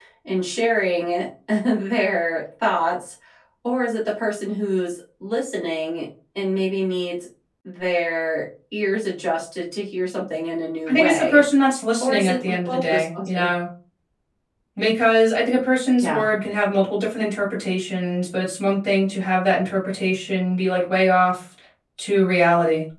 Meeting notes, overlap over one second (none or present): present